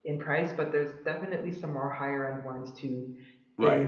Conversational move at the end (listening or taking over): taking over